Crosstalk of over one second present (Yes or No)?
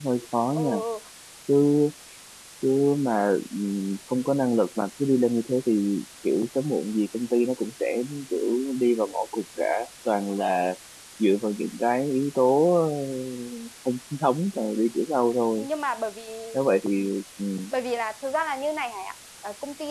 No